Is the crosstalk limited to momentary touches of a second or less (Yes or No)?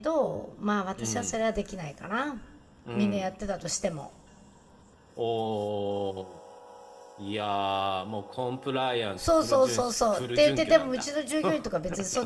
No